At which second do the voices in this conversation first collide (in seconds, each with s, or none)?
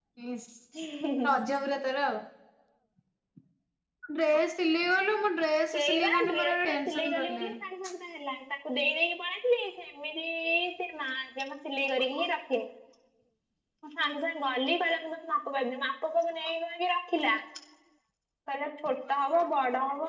5.7 s